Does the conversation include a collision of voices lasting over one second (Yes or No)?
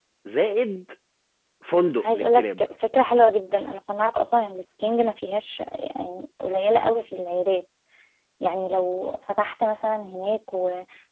No